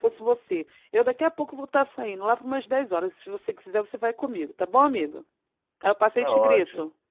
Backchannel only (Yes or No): No